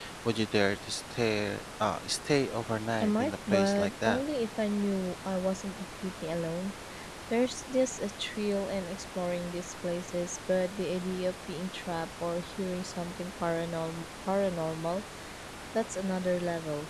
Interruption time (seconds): 3.0 s

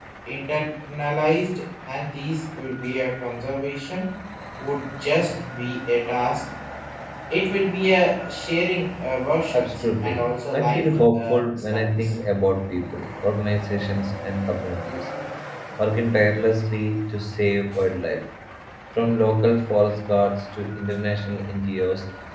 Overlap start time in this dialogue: 9.5 s

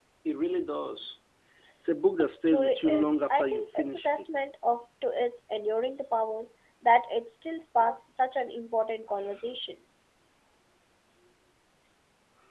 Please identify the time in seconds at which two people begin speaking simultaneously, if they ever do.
2.2 s

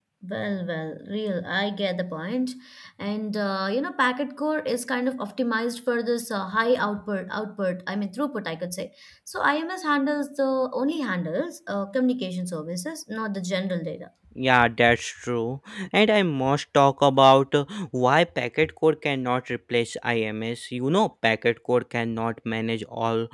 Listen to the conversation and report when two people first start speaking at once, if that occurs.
none

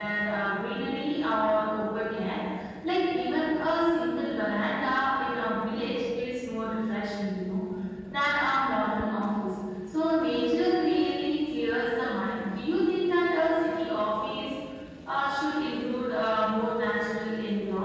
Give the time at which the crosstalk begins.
none

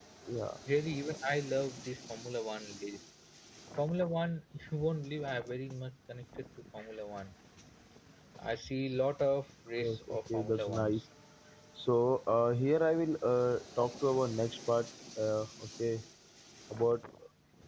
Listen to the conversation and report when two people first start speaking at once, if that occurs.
9.8 s

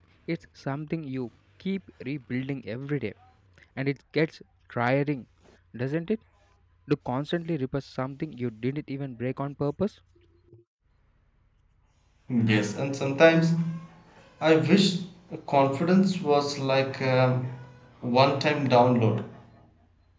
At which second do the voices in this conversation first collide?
none

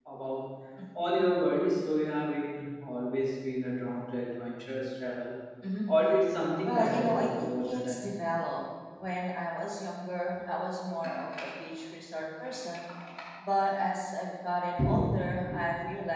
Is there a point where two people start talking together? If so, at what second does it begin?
6.7 s

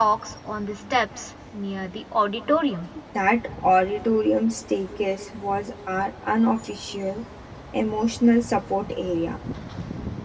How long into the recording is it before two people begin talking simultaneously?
none

